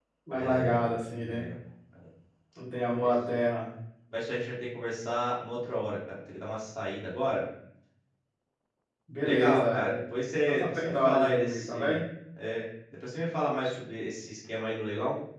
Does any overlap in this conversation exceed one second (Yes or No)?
Yes